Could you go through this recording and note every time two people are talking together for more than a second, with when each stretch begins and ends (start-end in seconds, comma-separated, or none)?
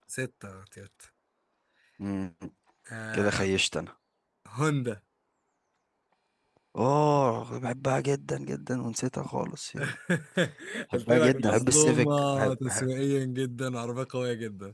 10.9-12.9